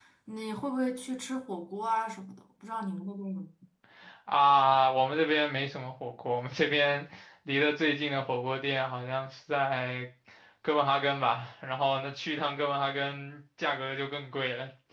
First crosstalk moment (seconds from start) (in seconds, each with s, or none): none